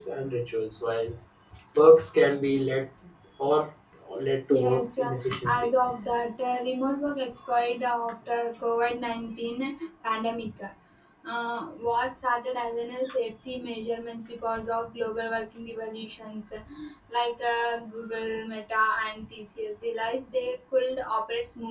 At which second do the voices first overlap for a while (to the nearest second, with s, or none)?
4 s